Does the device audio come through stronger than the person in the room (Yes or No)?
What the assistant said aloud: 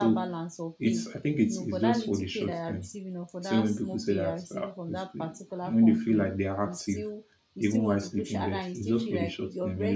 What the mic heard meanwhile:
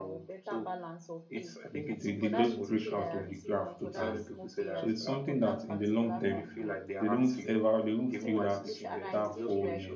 No